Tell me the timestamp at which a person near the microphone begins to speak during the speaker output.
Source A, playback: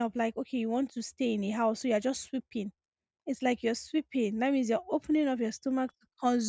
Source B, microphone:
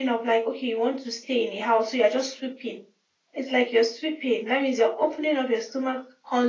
none

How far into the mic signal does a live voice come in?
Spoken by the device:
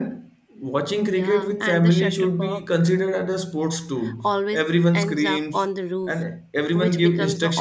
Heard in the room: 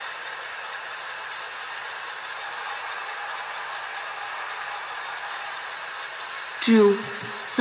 7 s

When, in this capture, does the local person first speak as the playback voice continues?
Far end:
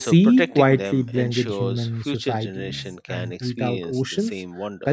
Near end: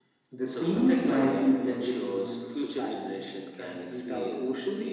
none

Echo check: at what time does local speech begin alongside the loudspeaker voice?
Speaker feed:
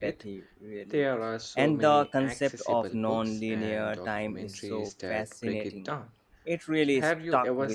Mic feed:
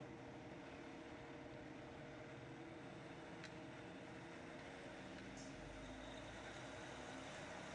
none

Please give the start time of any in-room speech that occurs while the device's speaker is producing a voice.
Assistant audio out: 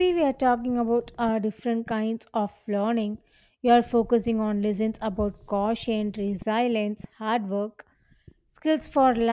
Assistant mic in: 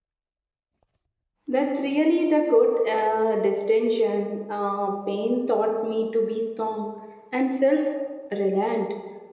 1 s

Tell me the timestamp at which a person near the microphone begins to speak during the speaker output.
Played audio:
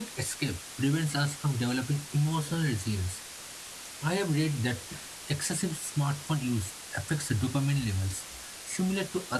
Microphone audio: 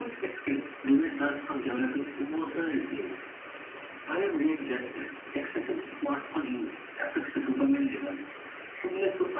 none

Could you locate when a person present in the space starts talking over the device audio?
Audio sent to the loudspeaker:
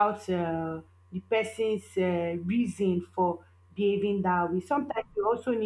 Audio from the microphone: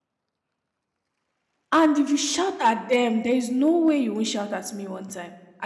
2 s

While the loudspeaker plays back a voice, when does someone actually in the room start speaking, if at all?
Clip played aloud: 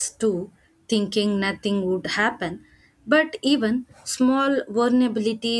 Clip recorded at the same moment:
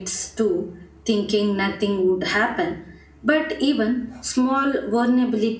none

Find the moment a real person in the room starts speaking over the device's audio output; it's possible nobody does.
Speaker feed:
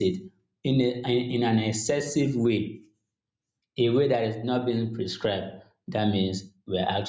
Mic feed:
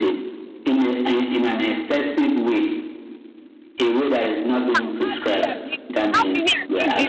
5 s

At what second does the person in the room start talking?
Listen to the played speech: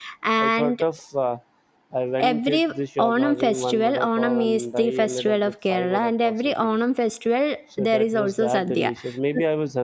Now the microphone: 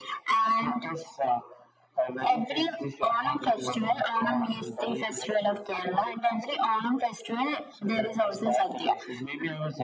none

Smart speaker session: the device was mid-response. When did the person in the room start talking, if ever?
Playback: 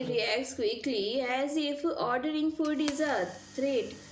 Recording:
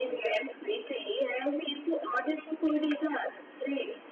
none

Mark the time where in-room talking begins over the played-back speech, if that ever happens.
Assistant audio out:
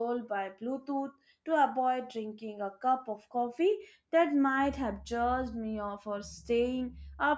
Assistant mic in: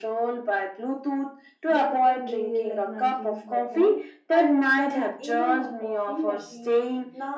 2 s

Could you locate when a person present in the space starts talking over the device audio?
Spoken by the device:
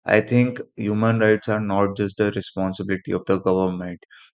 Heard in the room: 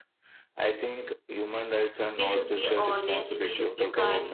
2 s

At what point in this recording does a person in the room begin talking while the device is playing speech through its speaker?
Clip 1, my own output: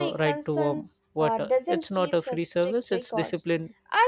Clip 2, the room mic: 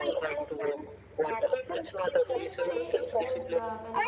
2 s

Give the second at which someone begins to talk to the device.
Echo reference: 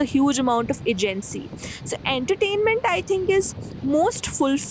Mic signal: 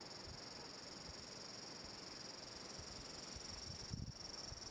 none

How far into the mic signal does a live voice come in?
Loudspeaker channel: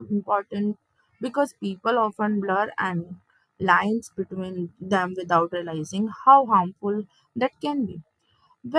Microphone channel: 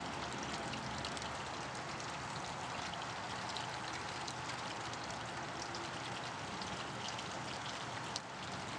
none

